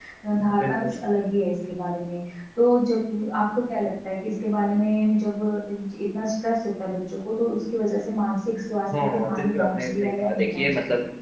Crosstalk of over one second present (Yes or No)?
Yes